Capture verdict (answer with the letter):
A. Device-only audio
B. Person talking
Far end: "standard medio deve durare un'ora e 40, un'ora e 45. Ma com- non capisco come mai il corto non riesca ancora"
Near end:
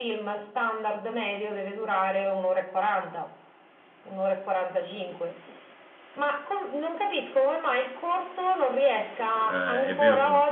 B